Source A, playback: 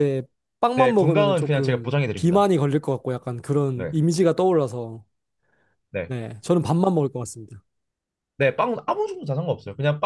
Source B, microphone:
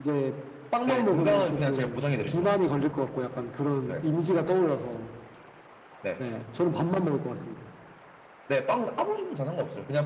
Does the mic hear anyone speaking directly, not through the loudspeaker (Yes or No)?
Yes